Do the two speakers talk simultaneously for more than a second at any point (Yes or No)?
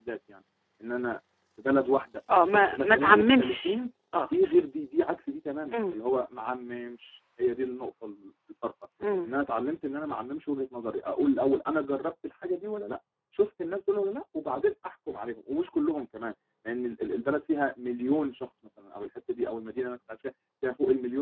Yes